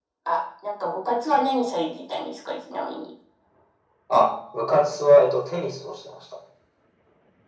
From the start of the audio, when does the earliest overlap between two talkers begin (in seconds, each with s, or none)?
none